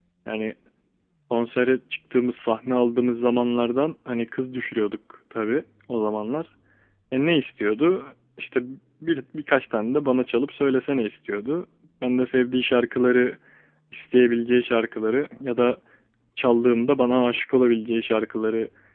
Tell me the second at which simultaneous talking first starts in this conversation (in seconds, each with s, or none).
none